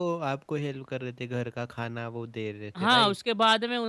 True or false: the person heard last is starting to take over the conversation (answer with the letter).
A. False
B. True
B